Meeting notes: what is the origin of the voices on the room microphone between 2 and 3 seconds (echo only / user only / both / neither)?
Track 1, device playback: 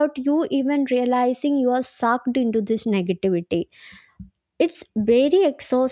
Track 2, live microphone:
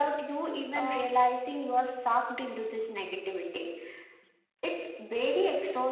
echo only